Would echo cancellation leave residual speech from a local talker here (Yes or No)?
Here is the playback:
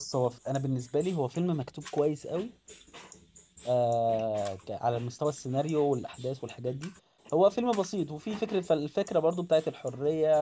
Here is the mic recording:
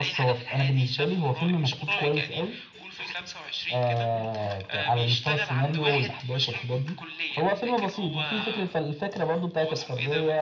Yes